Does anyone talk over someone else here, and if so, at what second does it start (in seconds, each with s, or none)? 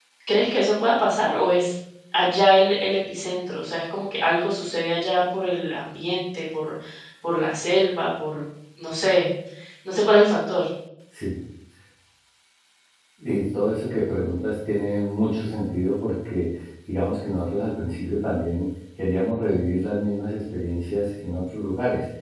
none